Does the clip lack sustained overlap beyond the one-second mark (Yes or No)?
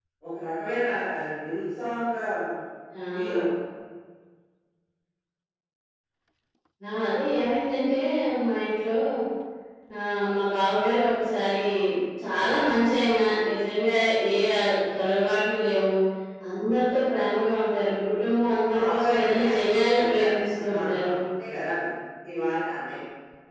No